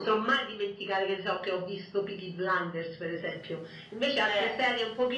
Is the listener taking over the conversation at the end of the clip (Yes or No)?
No